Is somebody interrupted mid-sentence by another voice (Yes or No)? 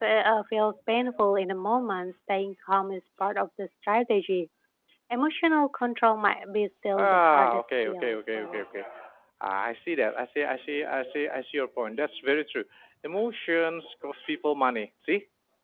Yes